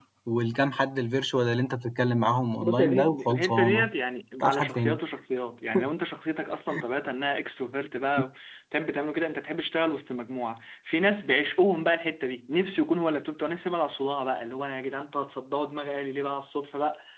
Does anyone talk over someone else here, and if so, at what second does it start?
2.6 s

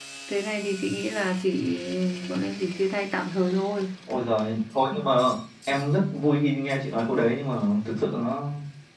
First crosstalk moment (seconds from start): none

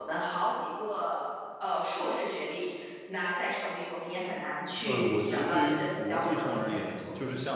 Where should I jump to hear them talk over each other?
4.8 s

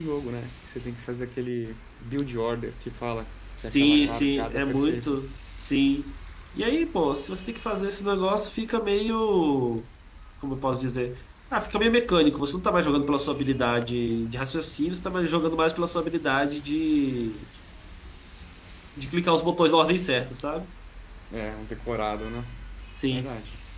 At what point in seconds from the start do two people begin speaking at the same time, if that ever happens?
3.6 s

